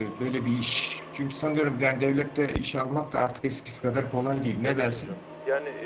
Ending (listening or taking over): taking over